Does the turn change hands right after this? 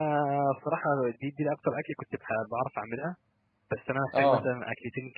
No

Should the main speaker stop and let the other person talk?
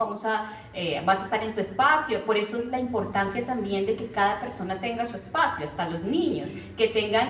No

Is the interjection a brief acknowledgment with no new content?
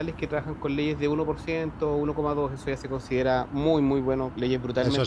No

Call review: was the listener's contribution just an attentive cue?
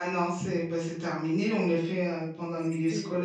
No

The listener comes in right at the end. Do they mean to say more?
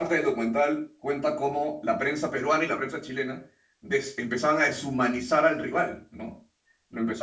No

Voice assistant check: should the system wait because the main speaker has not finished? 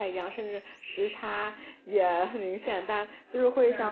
Yes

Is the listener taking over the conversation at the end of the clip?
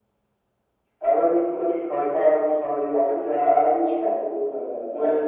Yes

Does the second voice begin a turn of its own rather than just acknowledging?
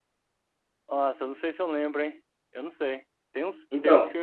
No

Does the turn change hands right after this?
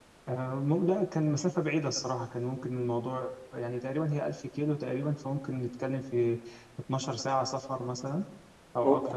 Yes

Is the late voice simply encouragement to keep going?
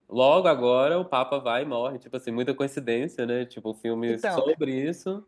Yes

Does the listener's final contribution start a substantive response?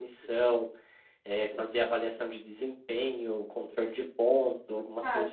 Yes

